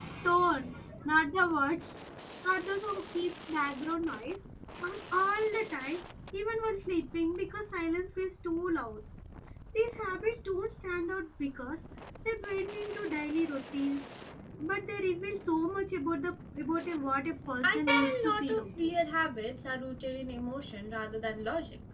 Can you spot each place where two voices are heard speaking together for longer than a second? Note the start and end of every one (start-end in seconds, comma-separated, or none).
17.6-18.9